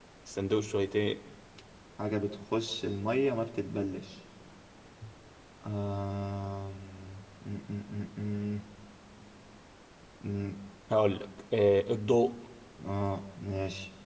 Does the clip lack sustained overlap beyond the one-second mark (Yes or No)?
Yes